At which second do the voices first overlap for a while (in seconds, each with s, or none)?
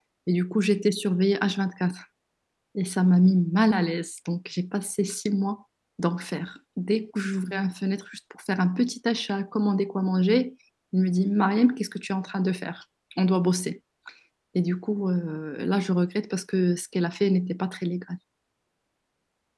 none